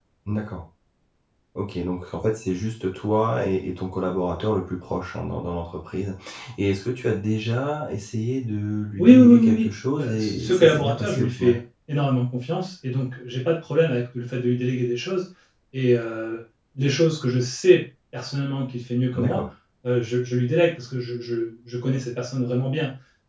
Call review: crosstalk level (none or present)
present